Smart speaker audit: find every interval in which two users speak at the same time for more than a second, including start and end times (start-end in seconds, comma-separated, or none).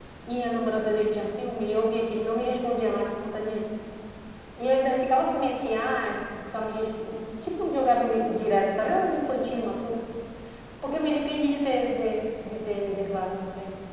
none